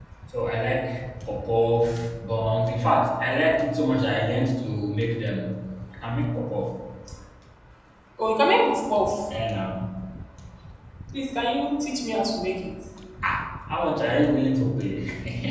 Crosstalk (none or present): none